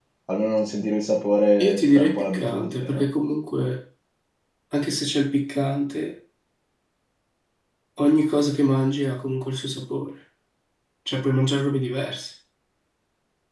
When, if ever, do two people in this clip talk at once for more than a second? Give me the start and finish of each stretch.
1.6-3.0

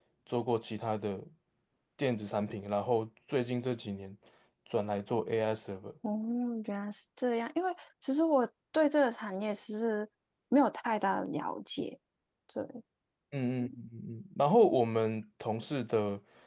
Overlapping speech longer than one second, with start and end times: none

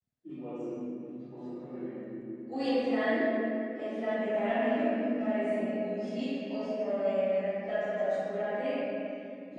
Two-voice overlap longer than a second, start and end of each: none

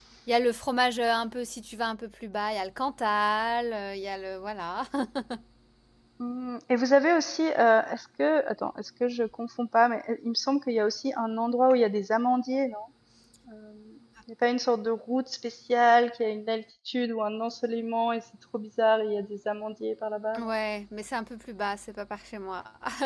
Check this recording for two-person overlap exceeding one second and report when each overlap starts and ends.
none

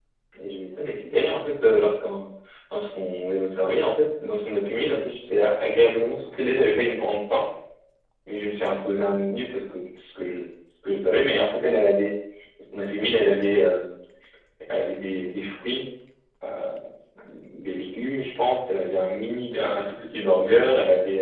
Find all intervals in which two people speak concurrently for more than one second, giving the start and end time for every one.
none

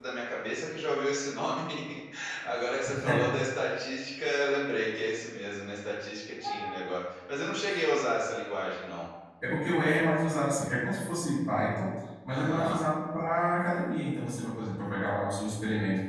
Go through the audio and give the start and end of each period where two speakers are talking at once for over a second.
none

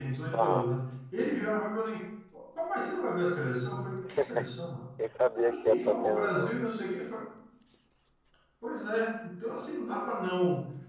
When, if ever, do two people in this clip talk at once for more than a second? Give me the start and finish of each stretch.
5.3-6.7

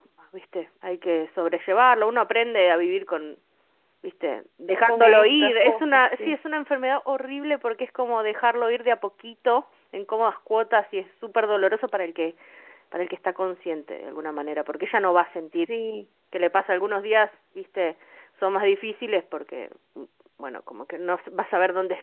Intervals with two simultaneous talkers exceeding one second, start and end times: 4.9-6.4

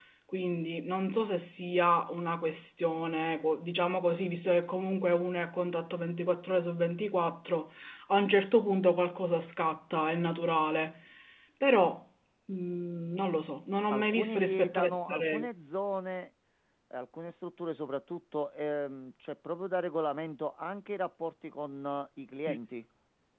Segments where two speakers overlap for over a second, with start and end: 13.9-15.5

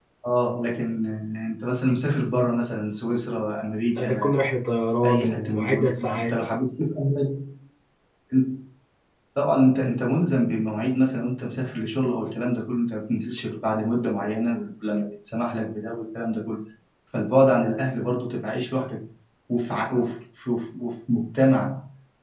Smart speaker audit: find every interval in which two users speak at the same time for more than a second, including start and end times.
5.0-6.3

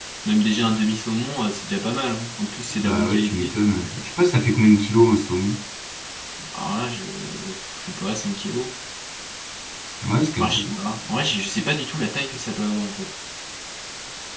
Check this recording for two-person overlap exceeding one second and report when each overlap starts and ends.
2.8-4.0

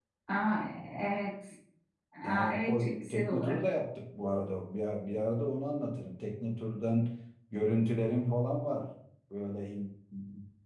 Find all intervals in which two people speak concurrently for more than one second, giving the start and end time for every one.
2.2-3.6

